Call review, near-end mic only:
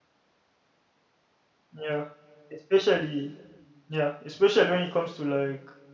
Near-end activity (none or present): present